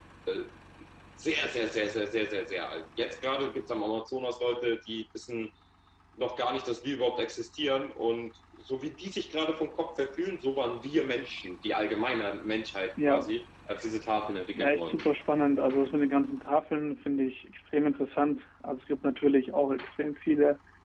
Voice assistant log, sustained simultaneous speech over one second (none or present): none